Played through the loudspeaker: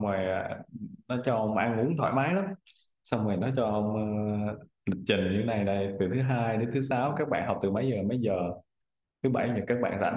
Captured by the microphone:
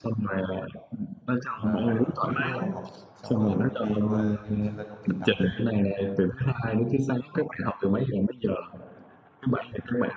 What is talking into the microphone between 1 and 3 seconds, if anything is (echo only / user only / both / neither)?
both